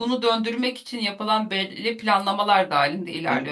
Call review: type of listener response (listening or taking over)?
taking over